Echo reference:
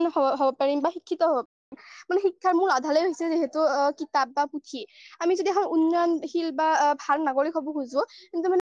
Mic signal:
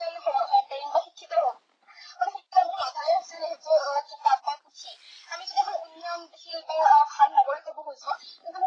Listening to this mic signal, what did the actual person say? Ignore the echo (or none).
none